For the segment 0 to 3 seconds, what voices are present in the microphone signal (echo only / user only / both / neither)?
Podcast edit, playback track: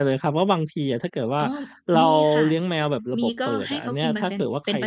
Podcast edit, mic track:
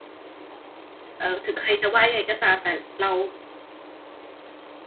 user only